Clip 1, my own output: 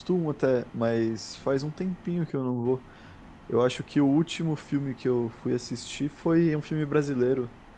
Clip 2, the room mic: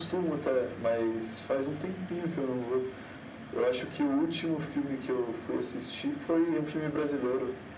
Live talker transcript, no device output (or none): none